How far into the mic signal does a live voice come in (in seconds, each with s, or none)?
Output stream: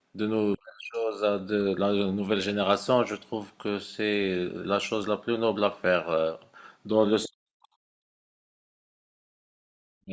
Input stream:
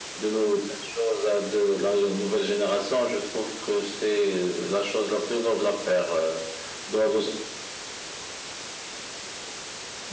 none